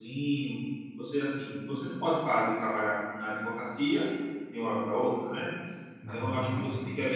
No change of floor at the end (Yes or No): Yes